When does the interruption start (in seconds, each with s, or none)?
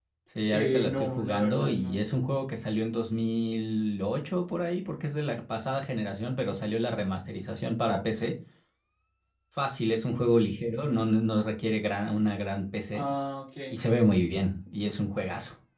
0.5 s